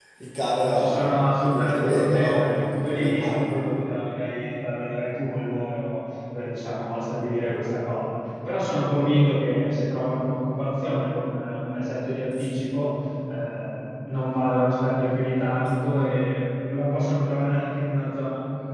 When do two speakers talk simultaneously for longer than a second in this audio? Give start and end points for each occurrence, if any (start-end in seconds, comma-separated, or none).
0.6-3.5